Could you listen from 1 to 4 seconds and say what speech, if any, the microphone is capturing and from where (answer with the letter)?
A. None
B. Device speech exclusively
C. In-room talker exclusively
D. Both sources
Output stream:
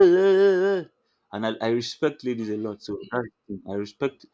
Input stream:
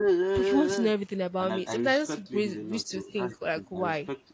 D